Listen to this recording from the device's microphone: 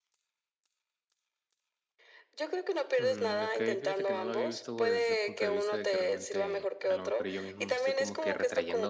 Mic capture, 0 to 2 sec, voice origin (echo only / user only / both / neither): neither